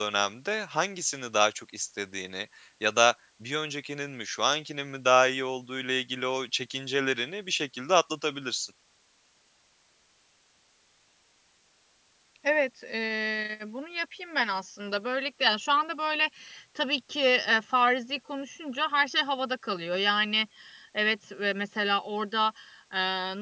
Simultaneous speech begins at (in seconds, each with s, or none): none